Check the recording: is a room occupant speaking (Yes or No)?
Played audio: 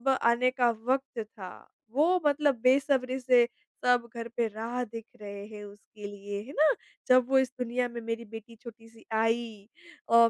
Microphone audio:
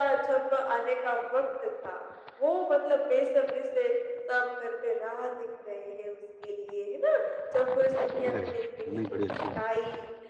Yes